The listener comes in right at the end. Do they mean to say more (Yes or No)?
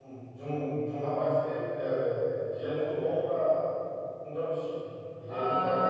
Yes